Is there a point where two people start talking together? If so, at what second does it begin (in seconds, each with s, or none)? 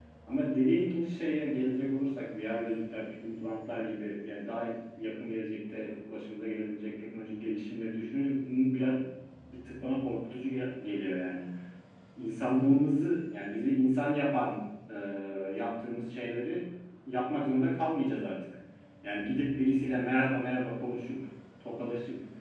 none